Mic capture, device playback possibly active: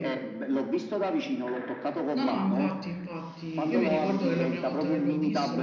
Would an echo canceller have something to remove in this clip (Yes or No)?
Yes